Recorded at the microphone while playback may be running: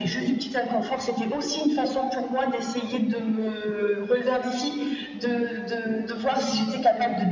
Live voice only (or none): none